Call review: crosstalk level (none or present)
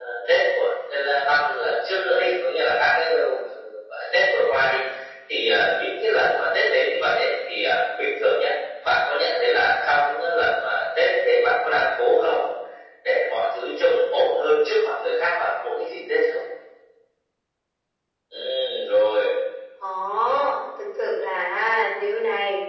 none